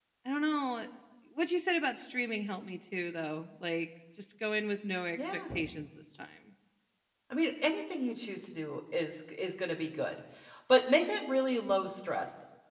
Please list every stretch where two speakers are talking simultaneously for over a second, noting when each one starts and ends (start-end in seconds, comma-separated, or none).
none